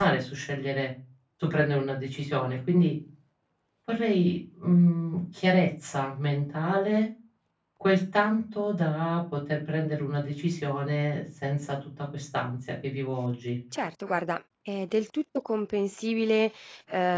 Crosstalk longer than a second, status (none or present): none